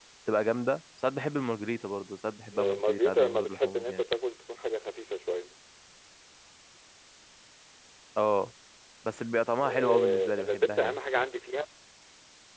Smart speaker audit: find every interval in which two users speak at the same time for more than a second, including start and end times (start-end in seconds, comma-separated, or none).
2.5-4.0, 9.6-11.0